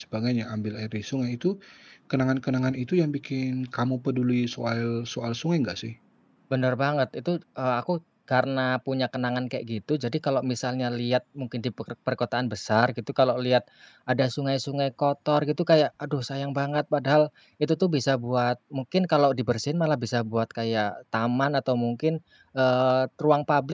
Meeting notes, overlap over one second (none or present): none